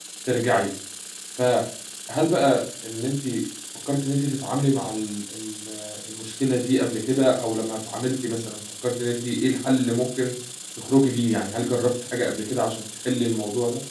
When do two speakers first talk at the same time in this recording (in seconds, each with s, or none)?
none